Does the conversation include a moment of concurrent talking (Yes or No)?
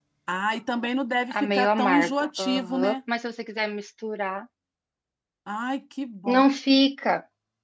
Yes